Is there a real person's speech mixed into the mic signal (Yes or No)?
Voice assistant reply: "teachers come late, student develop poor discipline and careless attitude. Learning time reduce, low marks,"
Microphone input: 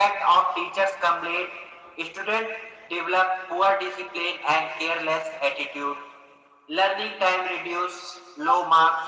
No